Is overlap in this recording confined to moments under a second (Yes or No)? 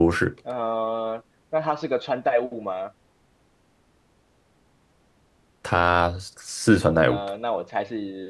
Yes